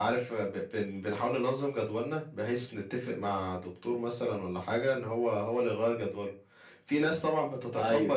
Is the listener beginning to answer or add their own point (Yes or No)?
No